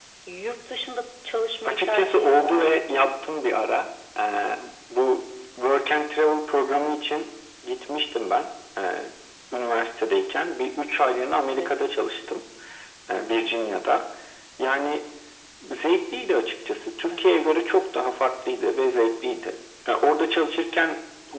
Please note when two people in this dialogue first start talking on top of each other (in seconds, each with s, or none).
1.6 s